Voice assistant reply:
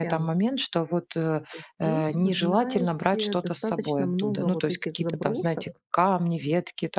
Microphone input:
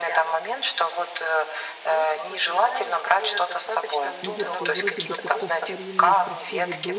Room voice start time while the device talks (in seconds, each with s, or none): 4.2 s